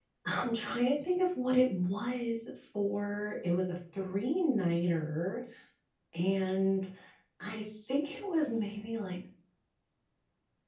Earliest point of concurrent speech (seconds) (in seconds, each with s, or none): none